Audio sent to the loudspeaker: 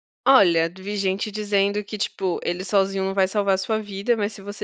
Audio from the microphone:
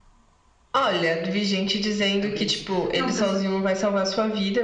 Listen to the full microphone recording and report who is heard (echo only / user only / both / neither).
both